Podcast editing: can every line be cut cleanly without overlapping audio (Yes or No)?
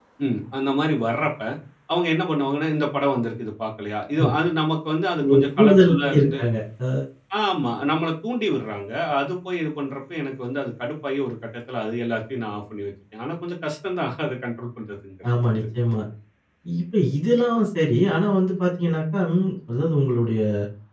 No